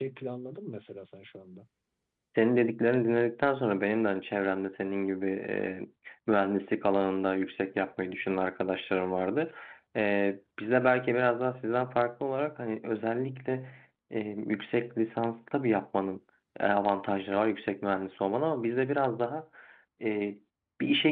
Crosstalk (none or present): none